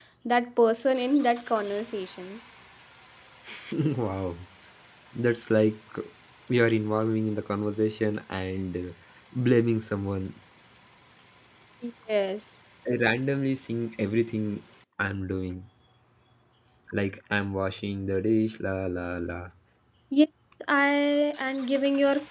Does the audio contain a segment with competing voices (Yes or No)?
No